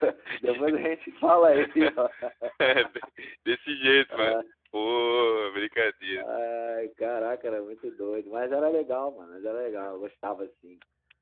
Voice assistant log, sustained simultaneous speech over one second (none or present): none